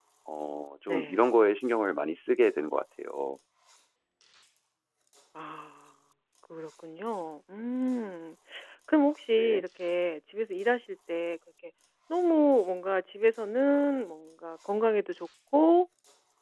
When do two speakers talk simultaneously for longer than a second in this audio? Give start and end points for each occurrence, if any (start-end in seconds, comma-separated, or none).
none